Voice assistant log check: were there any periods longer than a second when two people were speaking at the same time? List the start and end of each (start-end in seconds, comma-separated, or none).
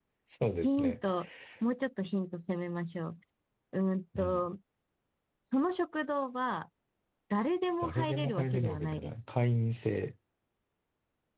7.8-9.1